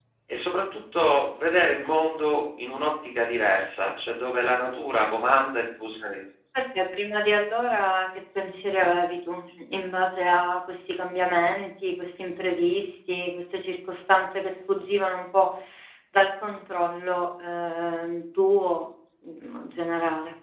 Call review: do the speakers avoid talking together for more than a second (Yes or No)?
Yes